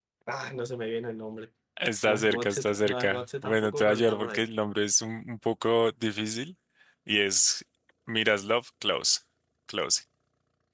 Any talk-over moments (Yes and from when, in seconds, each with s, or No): Yes, from 2.0 s